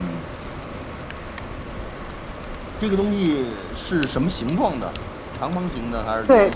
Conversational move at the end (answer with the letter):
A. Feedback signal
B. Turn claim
B